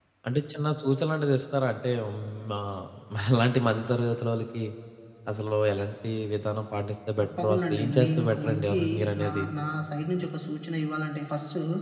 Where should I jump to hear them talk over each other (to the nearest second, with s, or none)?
7 s